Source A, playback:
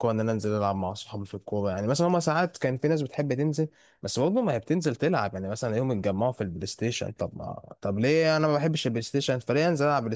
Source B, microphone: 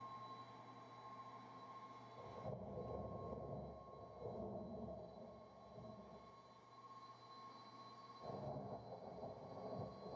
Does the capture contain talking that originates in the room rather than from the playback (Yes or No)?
No